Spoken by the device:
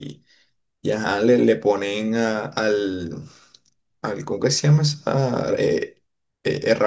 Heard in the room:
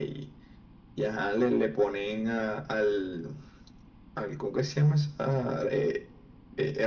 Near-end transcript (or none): none